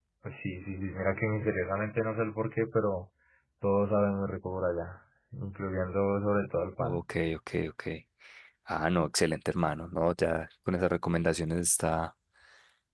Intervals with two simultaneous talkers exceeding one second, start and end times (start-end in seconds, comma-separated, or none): none